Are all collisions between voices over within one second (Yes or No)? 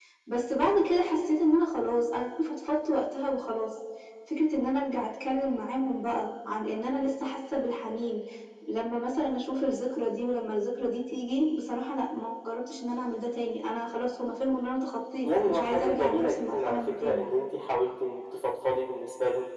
No